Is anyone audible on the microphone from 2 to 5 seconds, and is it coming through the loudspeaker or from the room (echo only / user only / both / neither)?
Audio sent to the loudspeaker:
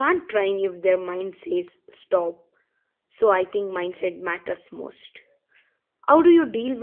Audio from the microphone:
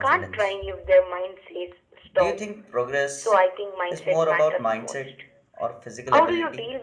both